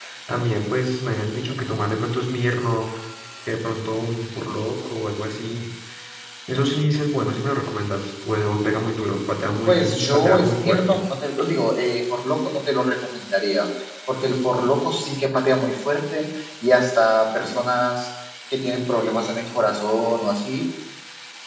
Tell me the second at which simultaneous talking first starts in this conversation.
9.7 s

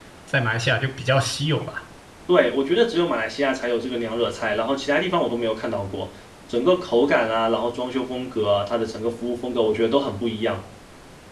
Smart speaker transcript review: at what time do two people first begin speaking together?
none

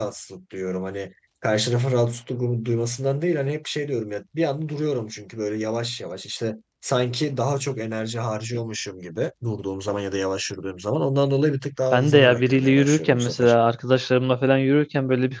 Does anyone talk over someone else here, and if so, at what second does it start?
11.9 s

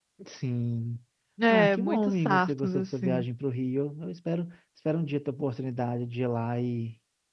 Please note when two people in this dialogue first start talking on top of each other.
1.5 s

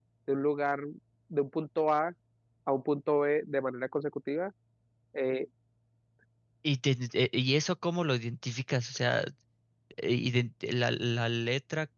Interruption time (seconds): none

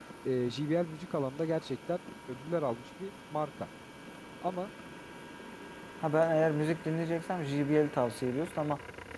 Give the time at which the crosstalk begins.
none

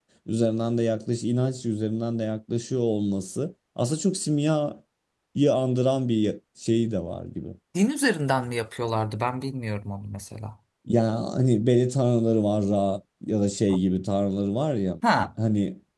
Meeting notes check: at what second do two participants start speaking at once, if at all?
none

